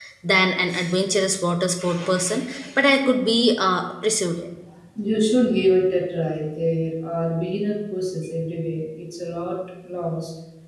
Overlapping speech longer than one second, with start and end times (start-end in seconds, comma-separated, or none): none